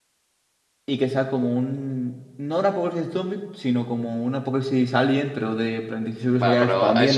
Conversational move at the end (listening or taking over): taking over